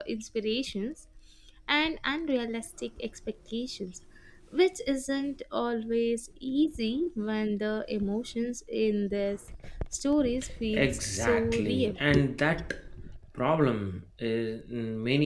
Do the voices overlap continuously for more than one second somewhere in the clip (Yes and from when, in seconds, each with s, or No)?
Yes, from 10.7 s